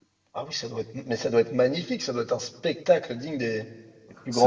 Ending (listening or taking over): taking over